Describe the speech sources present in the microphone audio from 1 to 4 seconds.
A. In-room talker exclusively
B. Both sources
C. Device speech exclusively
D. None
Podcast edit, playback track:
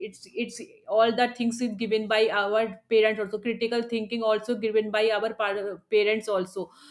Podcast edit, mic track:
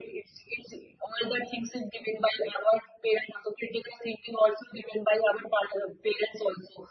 C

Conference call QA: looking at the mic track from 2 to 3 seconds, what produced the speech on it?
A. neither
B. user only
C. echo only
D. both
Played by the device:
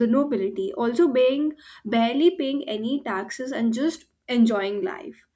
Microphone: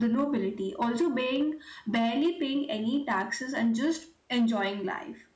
C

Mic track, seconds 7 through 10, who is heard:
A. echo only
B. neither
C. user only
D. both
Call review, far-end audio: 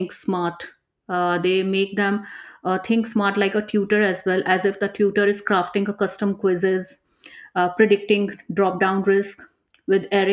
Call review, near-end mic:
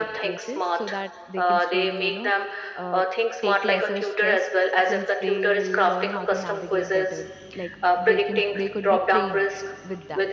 D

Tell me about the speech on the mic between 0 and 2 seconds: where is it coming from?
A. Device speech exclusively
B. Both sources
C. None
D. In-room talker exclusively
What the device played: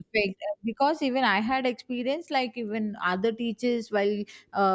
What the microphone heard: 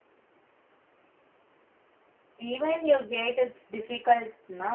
C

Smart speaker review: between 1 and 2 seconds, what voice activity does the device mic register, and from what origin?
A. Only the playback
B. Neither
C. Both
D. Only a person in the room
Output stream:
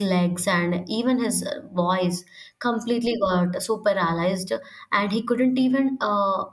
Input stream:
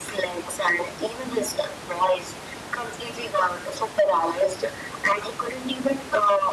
A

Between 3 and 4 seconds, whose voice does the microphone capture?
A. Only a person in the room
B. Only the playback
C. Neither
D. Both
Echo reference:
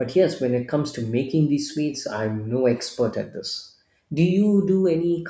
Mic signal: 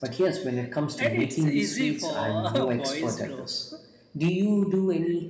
D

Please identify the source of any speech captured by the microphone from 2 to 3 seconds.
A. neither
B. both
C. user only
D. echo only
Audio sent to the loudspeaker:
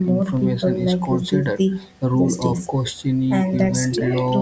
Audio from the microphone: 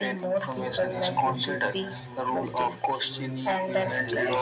B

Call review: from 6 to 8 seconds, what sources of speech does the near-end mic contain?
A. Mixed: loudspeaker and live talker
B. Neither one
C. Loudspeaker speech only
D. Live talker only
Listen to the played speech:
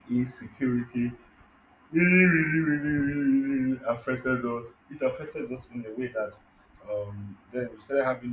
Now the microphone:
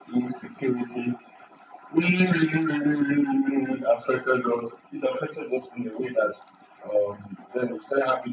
C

